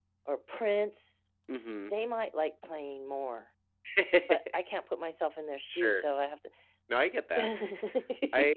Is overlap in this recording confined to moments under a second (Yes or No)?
Yes